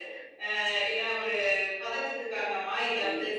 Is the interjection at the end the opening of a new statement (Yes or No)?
No